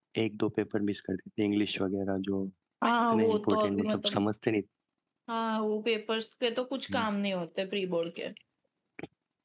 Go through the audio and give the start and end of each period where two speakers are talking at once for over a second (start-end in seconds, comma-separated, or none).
3.1-4.3